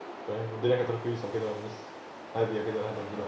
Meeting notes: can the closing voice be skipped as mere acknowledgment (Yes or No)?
No